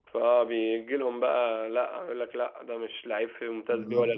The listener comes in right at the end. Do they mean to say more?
Yes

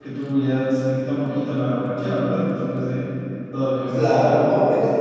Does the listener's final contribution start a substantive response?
Yes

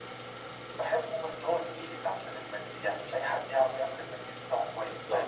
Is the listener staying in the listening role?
No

